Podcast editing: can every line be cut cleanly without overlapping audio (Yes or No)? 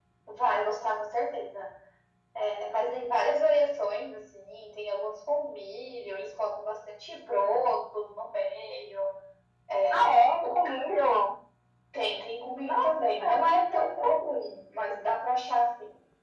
No